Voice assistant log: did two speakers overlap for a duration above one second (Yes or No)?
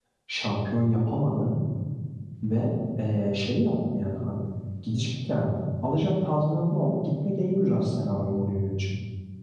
No